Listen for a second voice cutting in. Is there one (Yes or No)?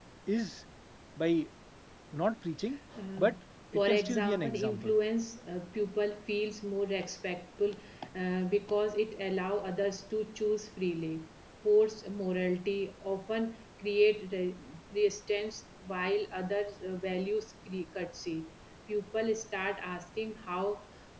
Yes